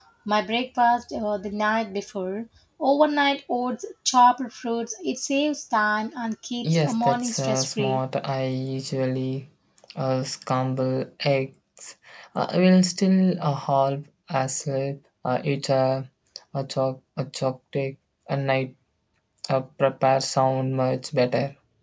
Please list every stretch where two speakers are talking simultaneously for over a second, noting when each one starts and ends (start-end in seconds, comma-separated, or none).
6.6-8.0